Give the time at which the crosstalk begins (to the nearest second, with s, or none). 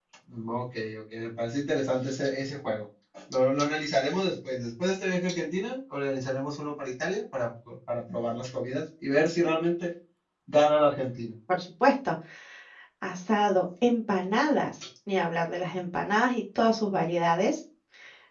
none